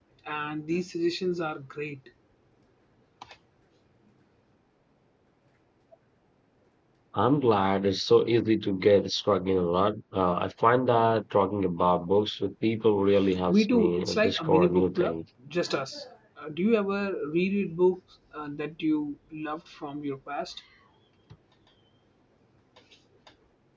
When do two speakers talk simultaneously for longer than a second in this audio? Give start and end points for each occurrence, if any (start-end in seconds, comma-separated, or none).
13.5-15.1